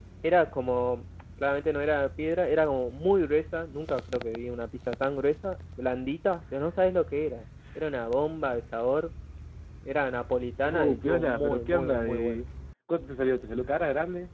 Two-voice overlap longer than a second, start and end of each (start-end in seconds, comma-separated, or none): 10.7-12.4